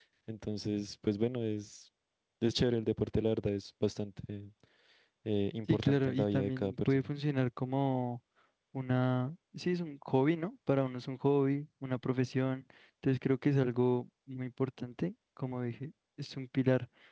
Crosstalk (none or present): present